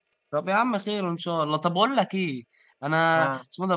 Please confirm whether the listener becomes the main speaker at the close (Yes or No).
No